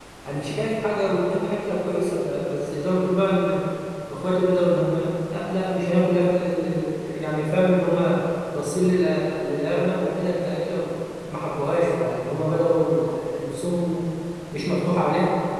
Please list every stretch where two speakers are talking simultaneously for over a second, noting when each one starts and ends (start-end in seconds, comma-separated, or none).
none